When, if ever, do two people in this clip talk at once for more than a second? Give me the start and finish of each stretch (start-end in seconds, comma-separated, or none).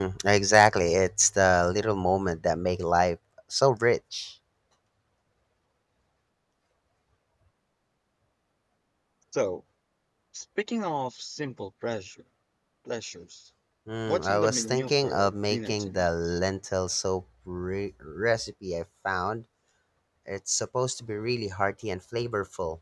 14.1-16.1